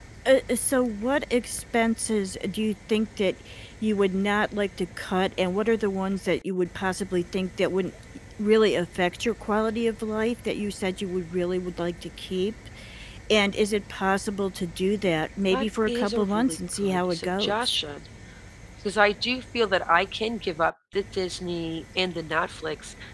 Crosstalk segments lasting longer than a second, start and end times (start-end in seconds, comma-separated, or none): 15.5-17.8